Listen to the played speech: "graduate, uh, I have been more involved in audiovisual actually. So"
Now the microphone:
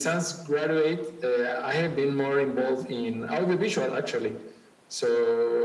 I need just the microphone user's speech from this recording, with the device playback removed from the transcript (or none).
none